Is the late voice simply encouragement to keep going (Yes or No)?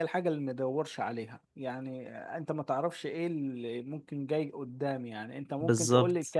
Yes